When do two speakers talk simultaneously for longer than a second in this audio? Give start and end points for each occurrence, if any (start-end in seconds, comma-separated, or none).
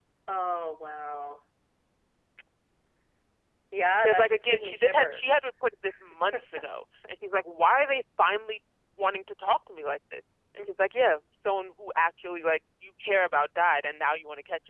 4.0-5.4